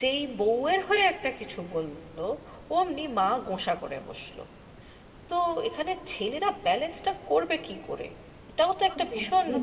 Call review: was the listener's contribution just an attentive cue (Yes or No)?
No